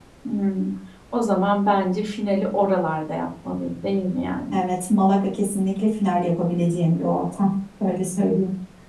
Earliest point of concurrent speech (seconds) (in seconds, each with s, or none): none